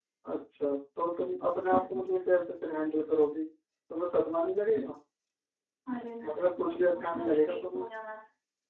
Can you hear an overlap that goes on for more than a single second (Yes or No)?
Yes